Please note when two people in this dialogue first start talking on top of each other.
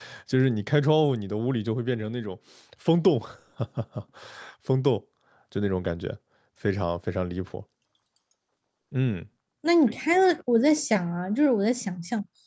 none

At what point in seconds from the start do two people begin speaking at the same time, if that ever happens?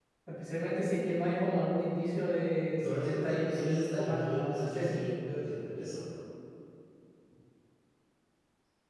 2.8 s

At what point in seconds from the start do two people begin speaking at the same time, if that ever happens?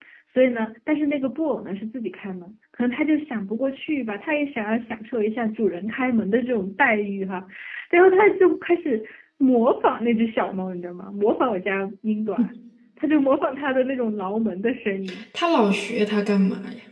none

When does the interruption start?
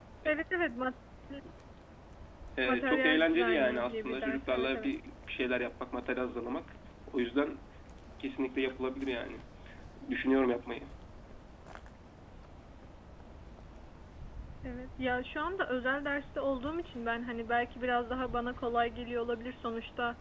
2.6 s

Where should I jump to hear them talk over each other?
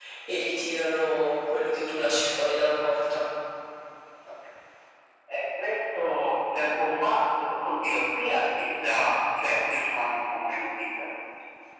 none

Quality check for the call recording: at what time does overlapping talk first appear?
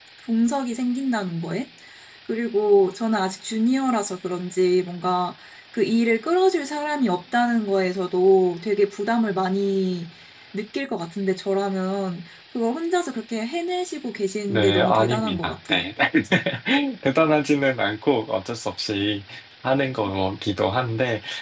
14.5 s

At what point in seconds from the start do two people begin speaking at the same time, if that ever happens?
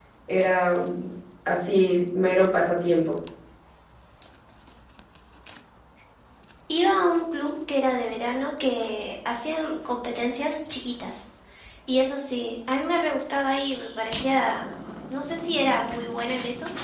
none

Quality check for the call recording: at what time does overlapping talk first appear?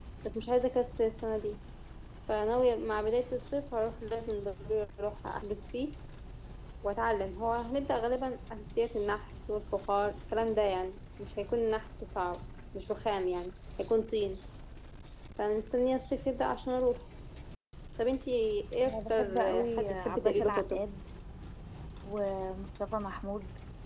18.8 s

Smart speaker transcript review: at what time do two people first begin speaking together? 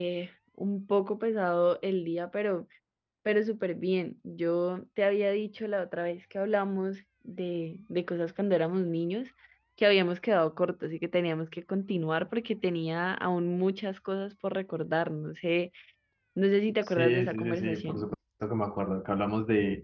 16.8 s

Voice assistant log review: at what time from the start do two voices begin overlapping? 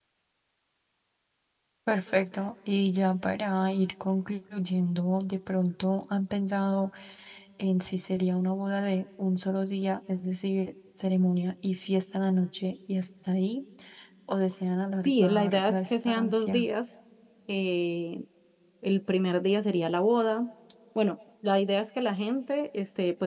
15.0 s

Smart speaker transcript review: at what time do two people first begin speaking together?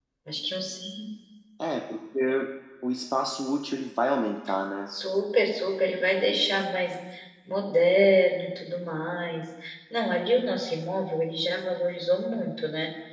none

